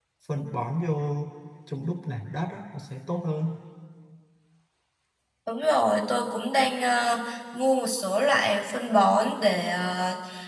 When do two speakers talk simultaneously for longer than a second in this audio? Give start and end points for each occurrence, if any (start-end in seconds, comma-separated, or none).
none